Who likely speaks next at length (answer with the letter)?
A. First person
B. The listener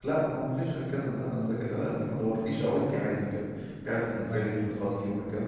A